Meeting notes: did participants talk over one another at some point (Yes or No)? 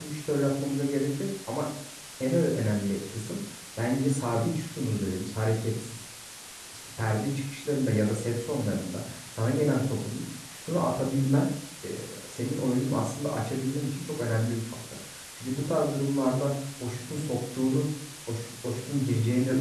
No